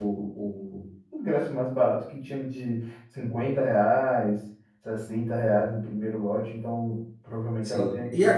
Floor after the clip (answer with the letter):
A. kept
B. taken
B